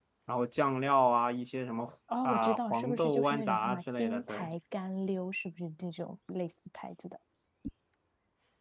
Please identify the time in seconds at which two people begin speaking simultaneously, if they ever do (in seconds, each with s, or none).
2.1 s